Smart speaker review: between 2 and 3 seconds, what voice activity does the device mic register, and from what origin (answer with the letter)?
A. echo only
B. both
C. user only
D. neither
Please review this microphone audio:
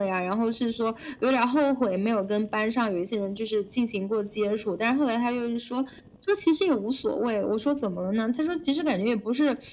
A